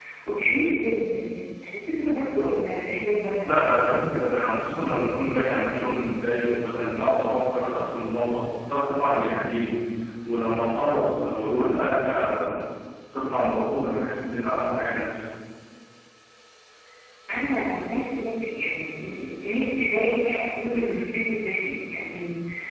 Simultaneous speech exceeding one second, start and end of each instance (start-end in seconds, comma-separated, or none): none